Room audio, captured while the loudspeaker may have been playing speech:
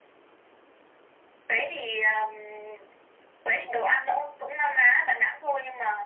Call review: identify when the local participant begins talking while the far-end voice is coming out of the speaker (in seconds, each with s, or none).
none